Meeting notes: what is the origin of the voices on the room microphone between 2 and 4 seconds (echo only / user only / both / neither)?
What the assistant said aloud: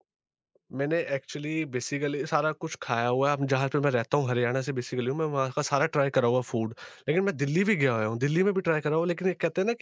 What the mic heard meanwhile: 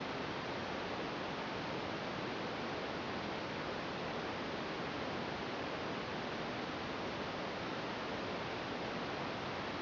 neither